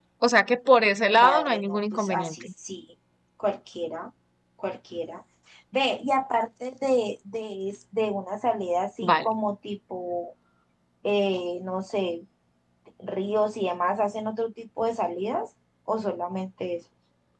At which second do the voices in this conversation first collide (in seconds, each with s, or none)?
1.2 s